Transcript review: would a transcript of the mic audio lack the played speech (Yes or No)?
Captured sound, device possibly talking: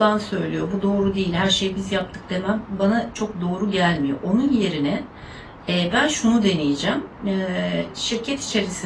Yes